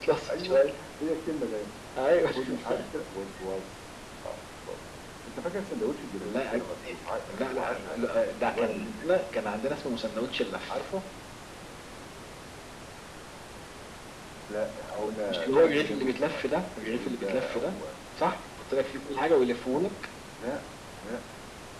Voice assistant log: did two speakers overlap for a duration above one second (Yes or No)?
Yes